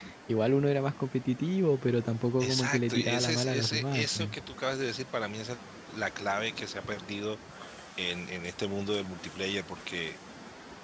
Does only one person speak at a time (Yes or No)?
No